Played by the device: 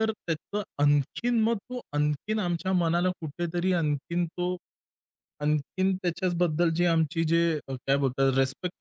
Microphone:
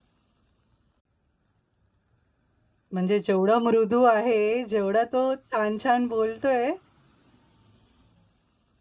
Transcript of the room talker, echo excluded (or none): म्हणजे जेवढा मृदू आहे, जेवढा तो छान-छान बोलतोय,